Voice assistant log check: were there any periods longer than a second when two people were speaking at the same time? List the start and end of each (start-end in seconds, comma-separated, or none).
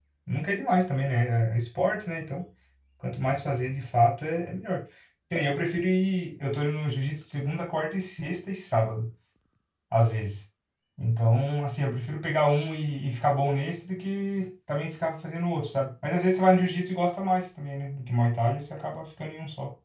none